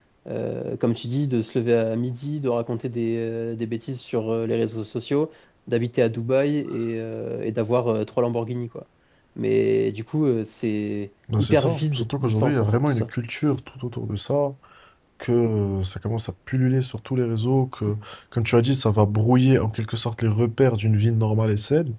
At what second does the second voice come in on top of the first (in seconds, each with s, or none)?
11.3 s